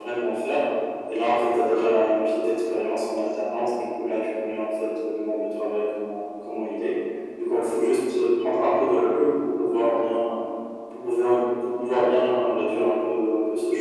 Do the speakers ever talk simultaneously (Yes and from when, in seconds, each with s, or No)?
No